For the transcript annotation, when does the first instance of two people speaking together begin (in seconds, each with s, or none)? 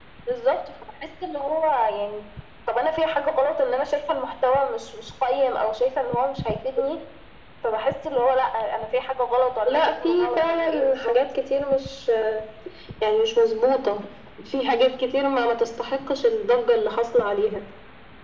9.7 s